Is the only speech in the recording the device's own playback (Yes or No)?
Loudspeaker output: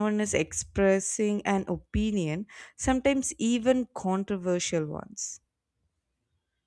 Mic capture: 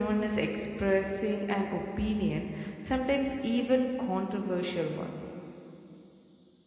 Yes